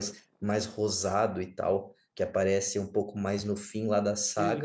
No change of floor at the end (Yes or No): No